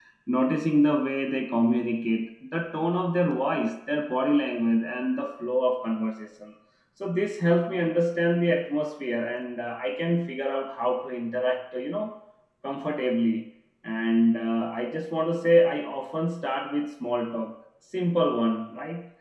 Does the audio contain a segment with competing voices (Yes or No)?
No